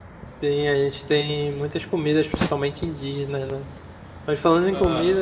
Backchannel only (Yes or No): Yes